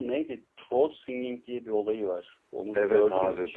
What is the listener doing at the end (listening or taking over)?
taking over